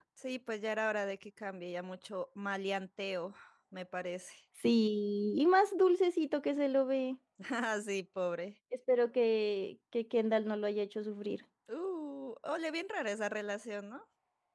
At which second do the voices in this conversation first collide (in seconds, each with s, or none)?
none